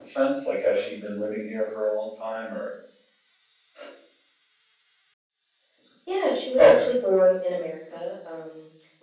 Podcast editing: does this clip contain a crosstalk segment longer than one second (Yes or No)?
No